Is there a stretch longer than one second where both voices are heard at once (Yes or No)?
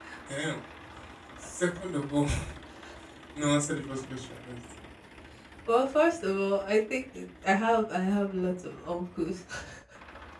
No